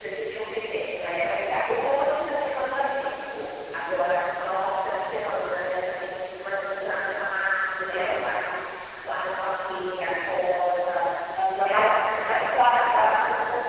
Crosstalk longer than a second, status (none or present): present